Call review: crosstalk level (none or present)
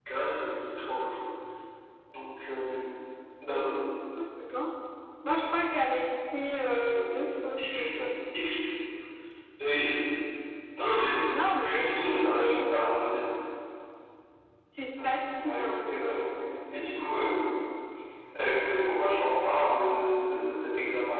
present